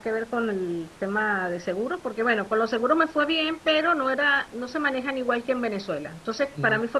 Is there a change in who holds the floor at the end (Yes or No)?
No